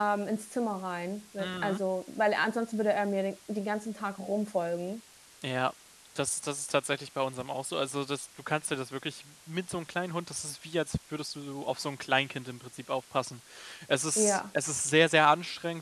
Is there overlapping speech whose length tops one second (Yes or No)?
No